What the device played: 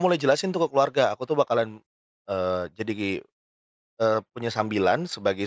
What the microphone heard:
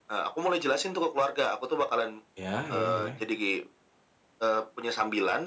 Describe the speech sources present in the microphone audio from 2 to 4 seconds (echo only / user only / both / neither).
both